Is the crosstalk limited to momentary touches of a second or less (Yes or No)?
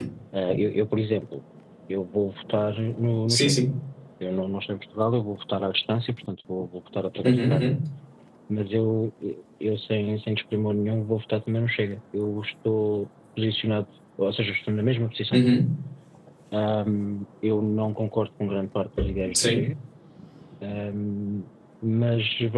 Yes